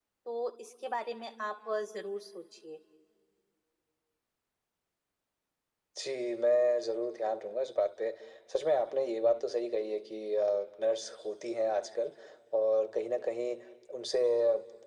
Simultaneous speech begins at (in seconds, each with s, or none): none